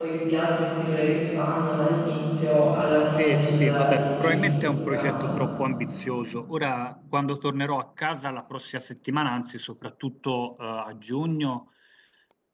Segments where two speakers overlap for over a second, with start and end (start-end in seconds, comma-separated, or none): 3.2-5.4